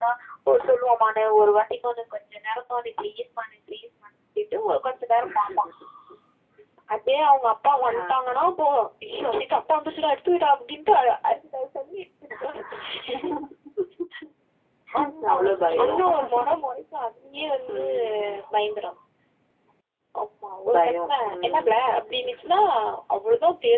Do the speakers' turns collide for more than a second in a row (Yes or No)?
Yes